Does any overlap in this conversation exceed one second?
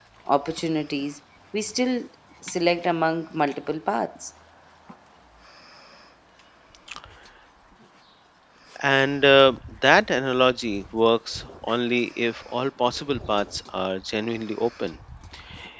No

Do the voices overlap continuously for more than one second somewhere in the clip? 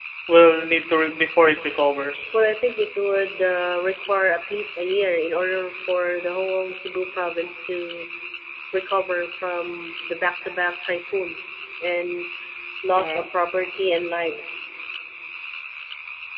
No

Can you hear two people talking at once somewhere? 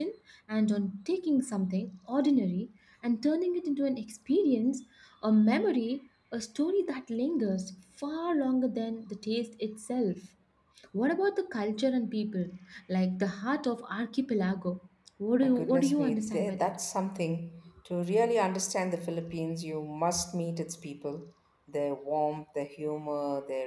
Yes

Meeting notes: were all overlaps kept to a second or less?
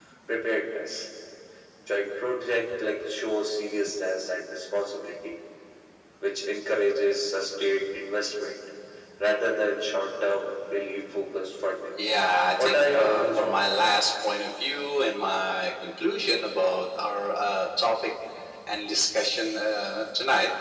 No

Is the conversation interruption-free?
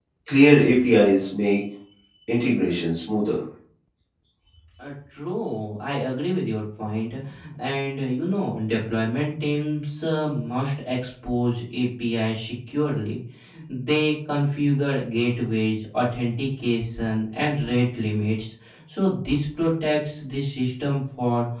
Yes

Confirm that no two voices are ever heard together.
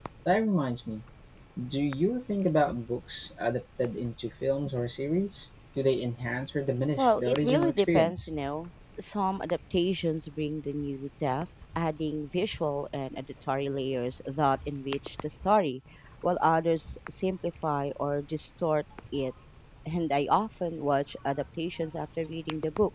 No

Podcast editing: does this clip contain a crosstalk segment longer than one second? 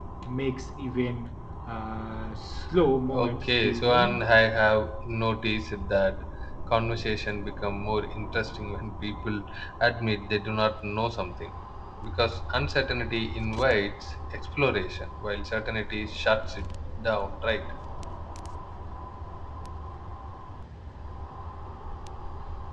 Yes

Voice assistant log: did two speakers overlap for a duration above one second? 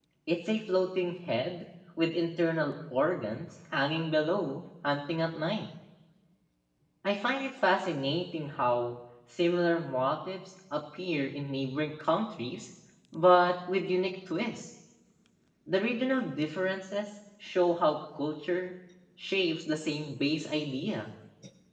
No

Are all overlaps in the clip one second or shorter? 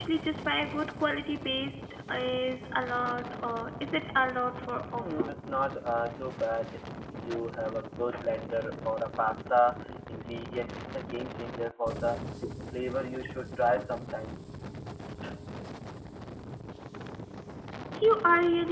Yes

